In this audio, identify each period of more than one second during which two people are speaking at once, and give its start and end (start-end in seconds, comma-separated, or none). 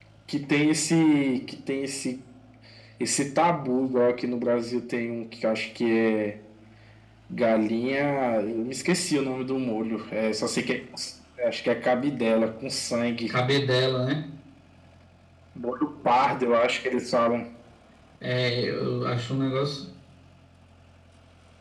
none